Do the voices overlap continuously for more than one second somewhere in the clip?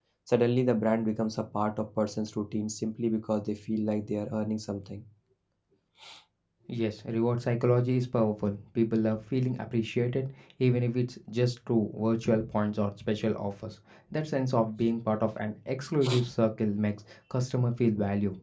No

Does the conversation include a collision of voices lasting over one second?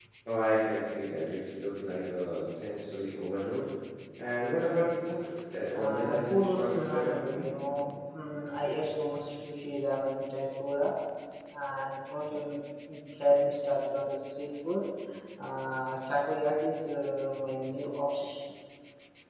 Yes, from 5.7 s

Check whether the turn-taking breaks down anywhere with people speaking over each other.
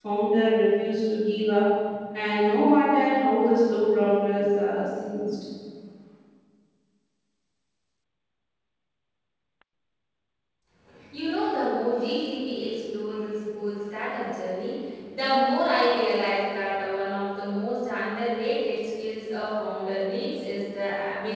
No

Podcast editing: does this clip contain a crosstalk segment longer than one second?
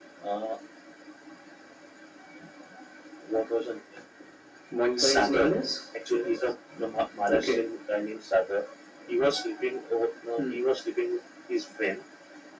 No

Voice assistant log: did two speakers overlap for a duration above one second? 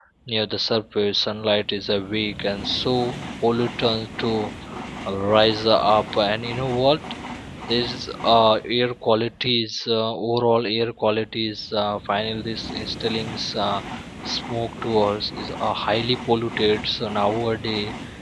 No

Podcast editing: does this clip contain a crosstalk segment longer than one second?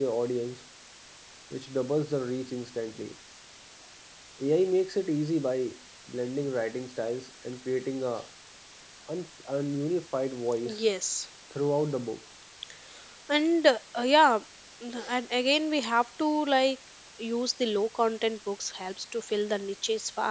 No

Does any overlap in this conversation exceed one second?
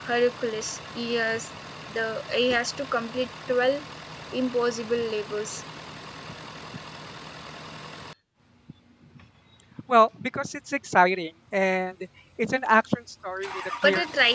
No

